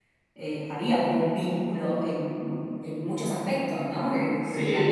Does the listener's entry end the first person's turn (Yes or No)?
No